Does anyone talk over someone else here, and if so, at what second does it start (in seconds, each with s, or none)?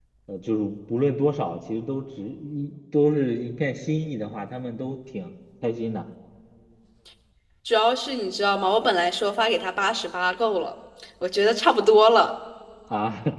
none